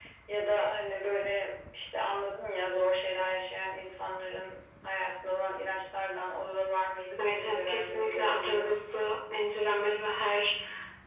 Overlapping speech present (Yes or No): Yes